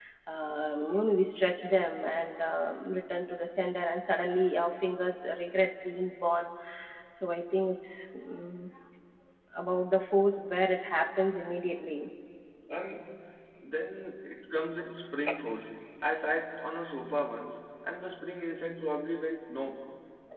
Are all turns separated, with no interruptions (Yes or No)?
Yes